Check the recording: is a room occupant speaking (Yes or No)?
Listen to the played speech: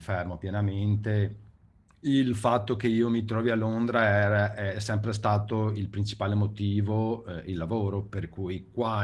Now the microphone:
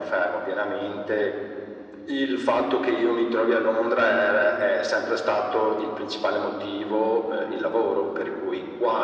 No